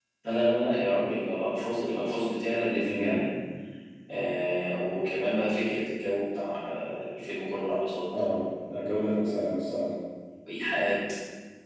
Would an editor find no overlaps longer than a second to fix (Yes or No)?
Yes